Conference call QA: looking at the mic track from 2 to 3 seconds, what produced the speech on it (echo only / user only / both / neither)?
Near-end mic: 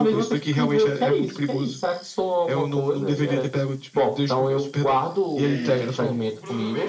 echo only